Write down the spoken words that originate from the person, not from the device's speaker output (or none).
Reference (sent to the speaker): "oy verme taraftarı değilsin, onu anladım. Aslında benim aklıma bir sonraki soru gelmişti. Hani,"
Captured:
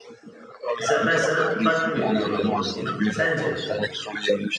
Mesela ben sana farklı bir yorumda bulunayım. Sence